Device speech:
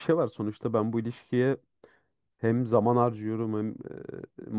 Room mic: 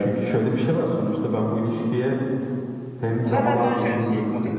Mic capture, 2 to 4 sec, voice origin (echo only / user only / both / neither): both